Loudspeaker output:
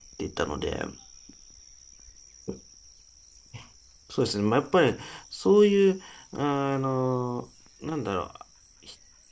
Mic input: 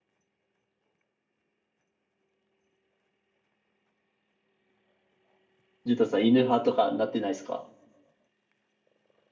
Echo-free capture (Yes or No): Yes